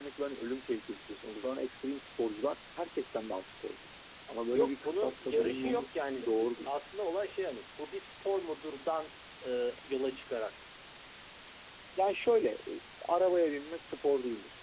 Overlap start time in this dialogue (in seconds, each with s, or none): 4.5 s